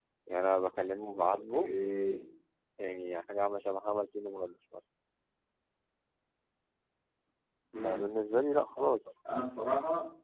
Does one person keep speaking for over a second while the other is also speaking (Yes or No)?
No